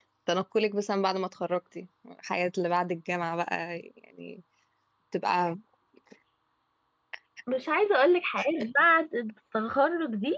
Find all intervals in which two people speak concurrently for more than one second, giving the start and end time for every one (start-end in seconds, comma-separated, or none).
none